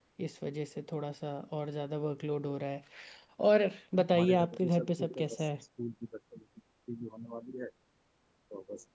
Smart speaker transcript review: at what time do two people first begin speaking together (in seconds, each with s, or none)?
4.1 s